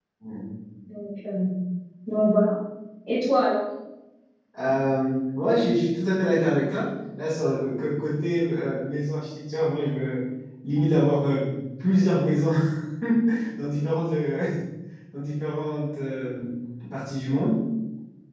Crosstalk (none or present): none